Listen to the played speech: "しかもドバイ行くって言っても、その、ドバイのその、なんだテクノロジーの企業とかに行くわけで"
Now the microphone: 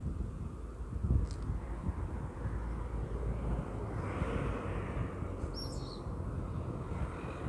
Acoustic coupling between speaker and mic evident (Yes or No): No